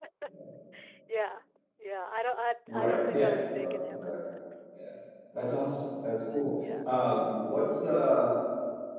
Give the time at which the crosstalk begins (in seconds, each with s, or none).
2.7 s